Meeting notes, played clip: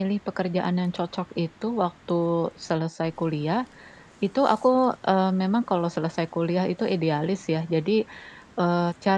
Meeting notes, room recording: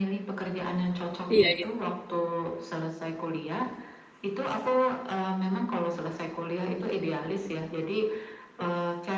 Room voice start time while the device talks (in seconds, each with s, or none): 1.3 s